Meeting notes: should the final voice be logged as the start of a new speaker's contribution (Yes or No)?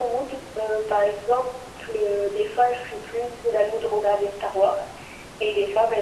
No